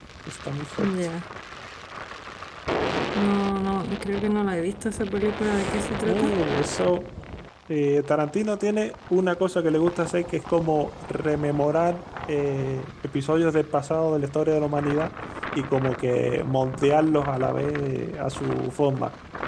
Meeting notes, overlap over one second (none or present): none